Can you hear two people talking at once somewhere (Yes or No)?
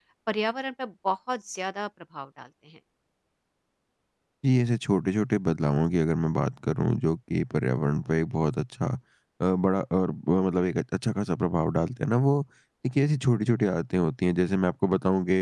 No